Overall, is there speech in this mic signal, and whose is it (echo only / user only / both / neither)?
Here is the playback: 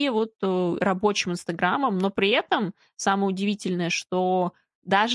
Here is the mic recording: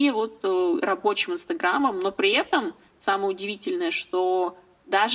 echo only